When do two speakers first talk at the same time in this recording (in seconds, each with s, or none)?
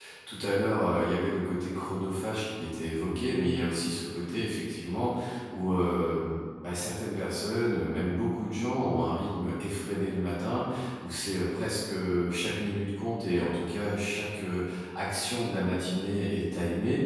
none